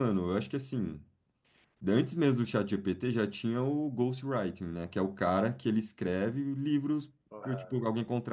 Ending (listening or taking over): listening